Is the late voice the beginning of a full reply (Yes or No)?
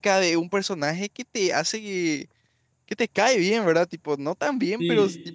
No